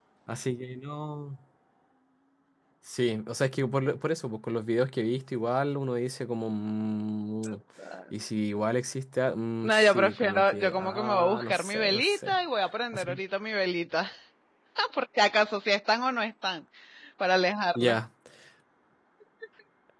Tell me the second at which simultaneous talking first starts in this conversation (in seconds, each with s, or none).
9.6 s